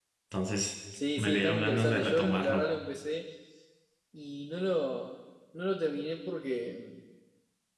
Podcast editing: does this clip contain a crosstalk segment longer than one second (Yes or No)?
Yes